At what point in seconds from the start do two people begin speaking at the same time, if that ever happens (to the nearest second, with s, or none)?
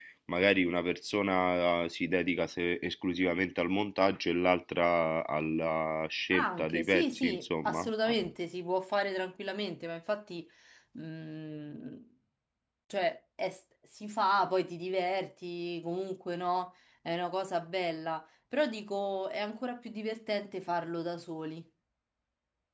6 s